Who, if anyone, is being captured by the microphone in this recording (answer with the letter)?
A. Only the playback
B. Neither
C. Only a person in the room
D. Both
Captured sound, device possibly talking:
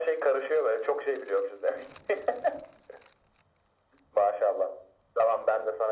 A